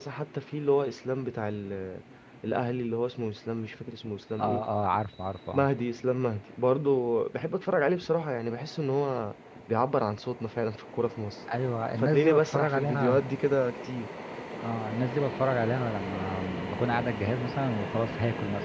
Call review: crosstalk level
present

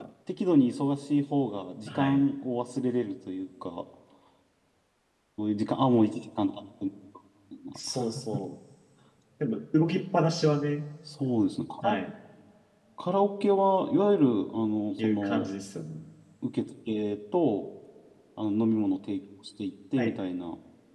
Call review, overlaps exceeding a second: none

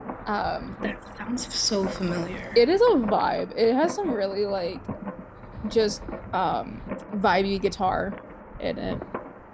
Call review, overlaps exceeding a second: none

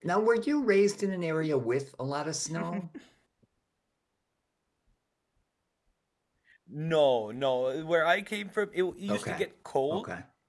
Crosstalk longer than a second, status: none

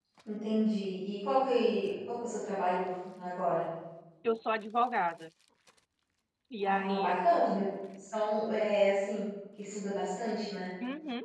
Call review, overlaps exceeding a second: none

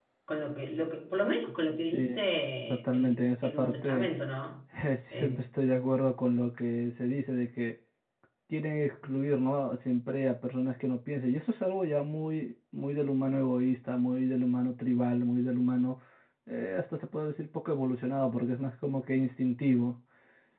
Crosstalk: present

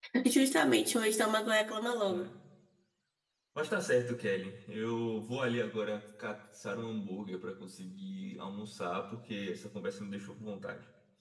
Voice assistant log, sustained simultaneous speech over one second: none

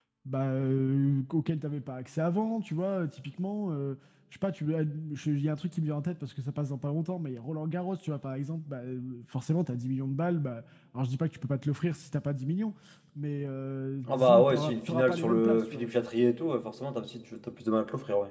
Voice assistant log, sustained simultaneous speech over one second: present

